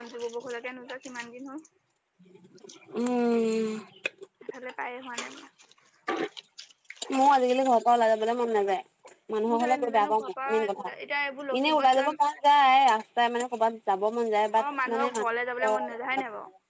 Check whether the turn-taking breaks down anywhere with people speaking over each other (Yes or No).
Yes